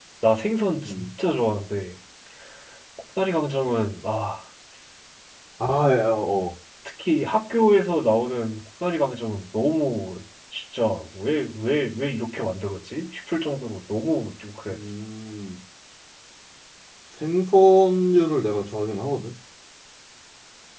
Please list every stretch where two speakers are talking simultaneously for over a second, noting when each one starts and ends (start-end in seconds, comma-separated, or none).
none